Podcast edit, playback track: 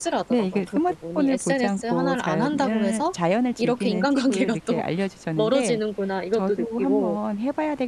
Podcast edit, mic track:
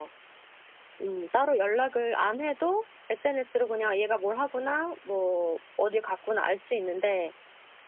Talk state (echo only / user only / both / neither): user only